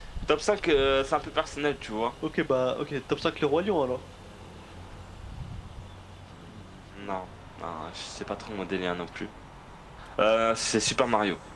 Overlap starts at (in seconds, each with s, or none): none